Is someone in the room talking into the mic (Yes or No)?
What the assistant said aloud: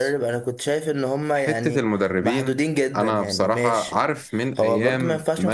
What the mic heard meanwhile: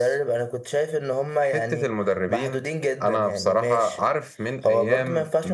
No